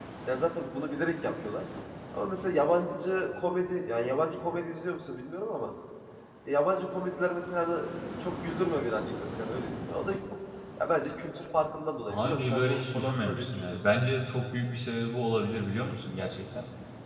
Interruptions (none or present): present